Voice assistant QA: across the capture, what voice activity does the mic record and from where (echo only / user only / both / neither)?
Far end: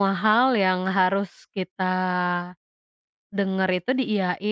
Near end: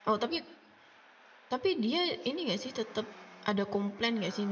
user only